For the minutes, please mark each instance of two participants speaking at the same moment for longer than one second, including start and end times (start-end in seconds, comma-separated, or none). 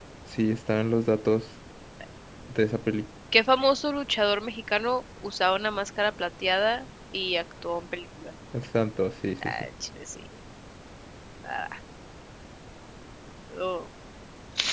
none